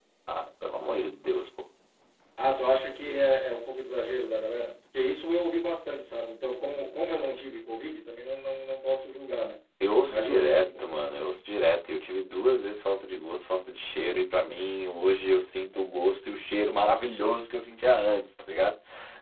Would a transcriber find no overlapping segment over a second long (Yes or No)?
Yes